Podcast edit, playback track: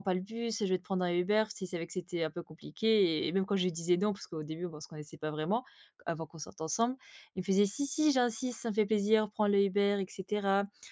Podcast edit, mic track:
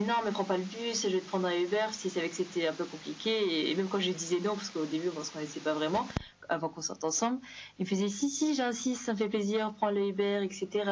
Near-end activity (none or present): none